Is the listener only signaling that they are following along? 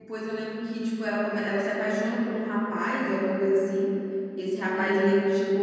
Yes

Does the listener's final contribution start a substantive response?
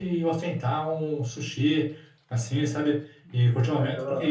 No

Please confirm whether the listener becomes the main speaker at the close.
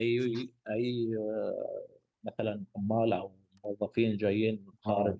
Yes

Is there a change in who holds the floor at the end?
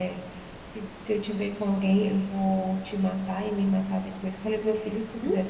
No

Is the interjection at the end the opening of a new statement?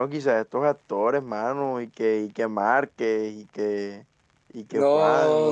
Yes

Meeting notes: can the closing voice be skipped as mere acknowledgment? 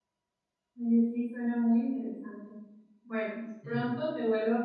Yes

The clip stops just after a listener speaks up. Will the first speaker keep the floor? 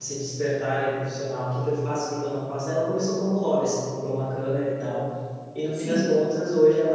Yes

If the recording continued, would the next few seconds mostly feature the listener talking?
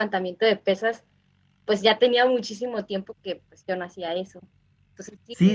Yes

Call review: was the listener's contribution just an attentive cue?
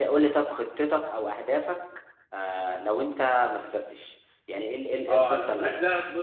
No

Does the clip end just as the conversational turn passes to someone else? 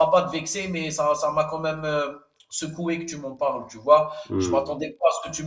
No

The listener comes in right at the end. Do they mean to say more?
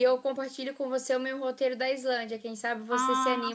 Yes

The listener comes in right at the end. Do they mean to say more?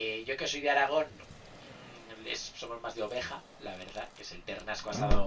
No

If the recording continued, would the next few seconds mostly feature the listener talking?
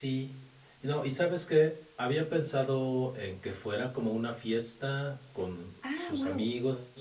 No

